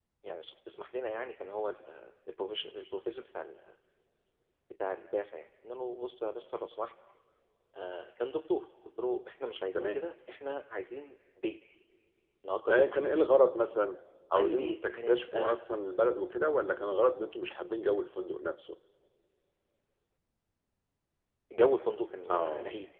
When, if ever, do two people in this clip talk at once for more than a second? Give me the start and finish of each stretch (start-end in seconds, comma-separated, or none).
14.3-15.6